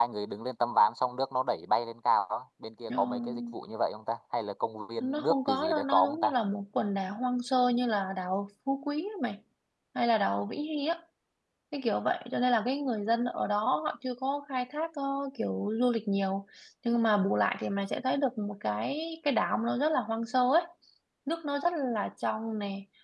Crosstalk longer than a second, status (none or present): present